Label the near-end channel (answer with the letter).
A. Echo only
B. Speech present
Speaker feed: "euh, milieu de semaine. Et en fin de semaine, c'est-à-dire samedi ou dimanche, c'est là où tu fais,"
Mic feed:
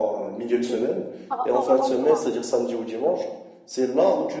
B